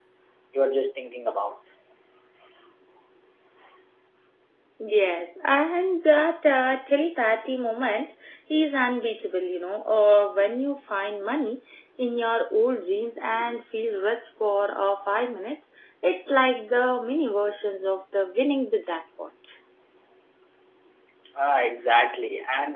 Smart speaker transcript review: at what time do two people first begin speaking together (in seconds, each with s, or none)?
none